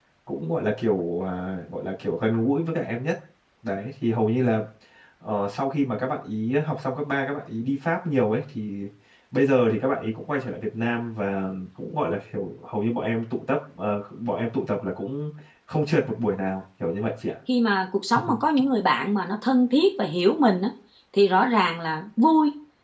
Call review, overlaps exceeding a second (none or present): none